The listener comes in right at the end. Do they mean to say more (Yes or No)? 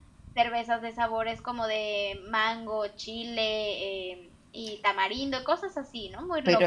Yes